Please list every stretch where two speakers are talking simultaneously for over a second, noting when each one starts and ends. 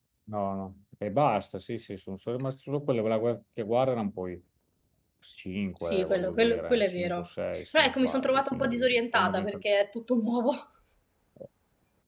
5.8-7.3, 7.8-9.6

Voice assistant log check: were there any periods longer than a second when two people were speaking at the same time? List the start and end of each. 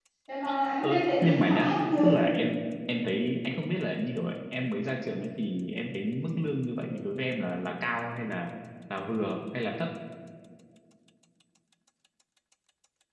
0.8-2.1

